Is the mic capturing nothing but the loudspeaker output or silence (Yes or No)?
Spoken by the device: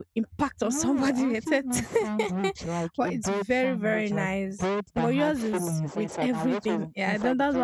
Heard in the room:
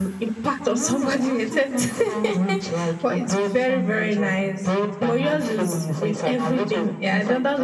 Yes